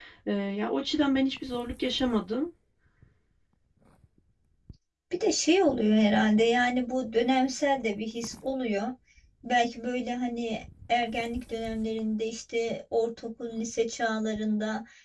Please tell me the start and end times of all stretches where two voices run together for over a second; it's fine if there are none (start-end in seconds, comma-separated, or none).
none